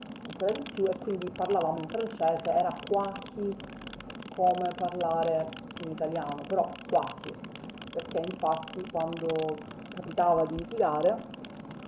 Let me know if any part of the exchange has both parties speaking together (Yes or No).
No